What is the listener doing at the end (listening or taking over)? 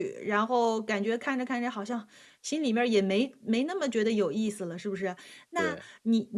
listening